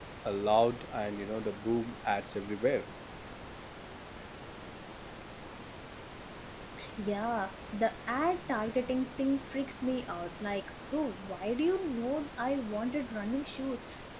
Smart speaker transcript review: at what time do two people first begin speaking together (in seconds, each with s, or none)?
none